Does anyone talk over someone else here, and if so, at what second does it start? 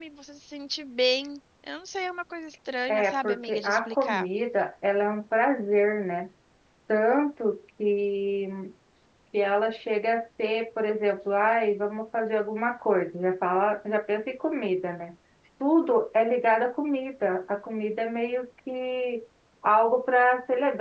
3 s

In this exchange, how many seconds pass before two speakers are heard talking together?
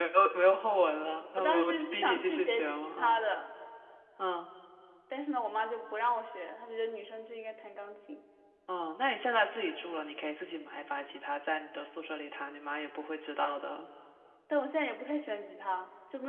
1 s

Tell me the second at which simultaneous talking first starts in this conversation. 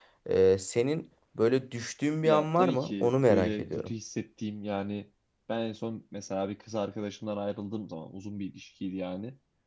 2 s

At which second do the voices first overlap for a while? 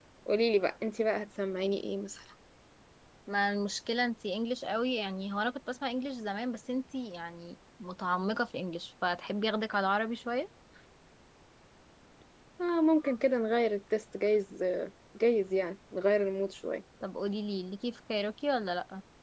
none

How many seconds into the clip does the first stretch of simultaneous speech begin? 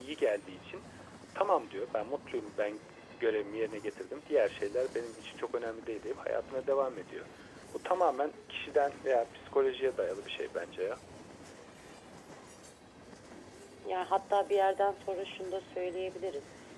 none

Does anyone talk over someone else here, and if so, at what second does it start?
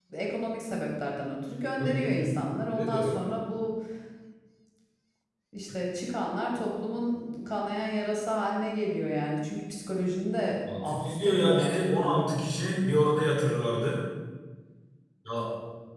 2 s

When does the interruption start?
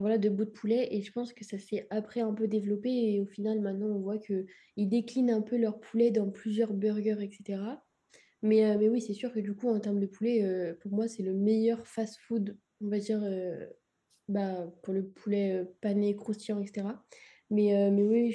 none

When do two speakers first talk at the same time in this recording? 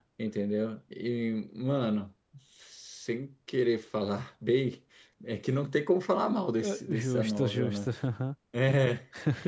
7 s

